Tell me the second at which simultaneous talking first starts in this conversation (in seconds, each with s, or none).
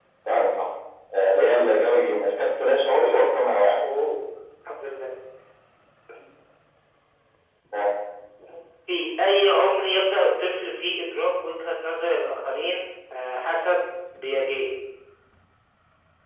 none